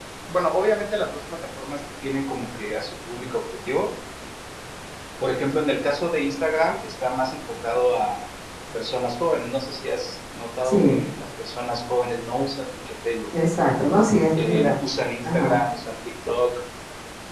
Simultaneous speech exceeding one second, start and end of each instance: none

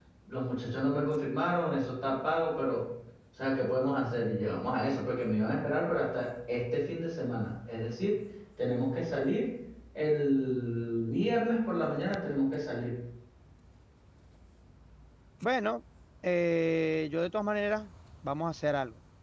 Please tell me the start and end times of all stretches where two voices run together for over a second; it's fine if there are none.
none

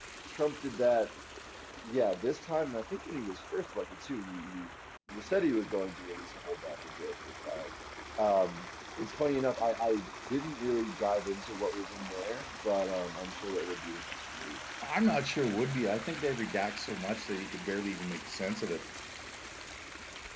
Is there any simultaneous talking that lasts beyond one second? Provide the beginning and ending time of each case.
none

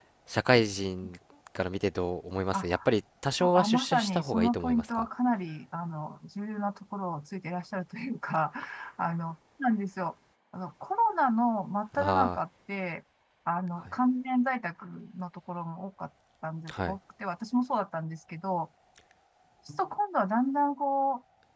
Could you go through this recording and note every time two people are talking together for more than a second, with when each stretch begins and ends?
3.4-5.1

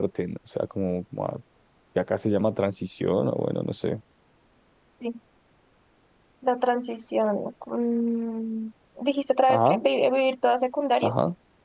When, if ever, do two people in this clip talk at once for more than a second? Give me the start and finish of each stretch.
none

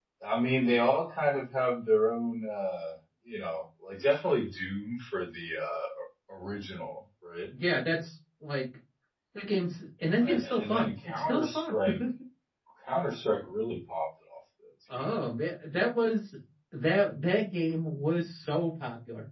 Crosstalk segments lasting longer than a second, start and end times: 10.2-11.8

